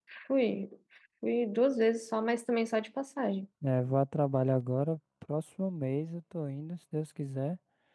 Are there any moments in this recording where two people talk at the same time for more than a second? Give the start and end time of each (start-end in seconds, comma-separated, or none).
none